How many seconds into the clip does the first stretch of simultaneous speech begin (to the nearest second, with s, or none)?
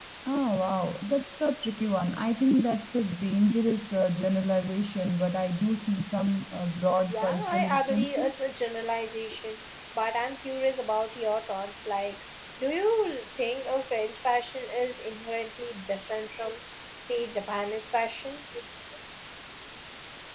7 s